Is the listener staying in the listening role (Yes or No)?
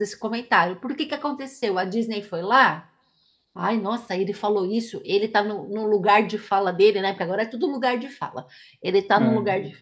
Yes